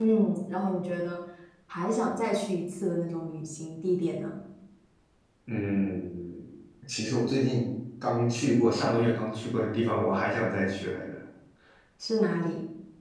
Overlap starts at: none

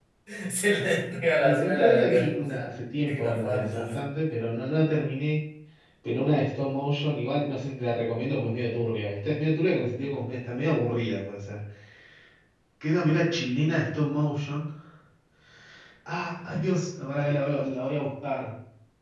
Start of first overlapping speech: 1.4 s

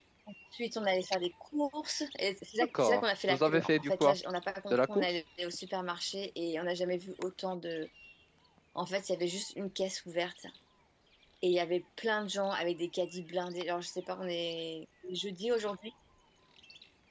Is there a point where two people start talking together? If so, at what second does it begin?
2.8 s

